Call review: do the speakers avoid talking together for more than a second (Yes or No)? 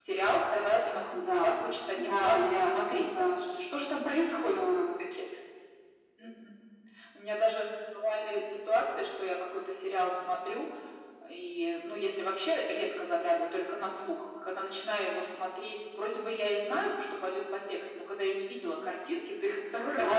No